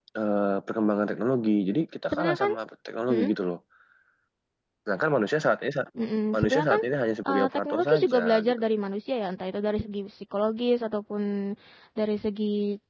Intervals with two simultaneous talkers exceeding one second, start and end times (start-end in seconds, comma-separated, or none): 7.3-8.7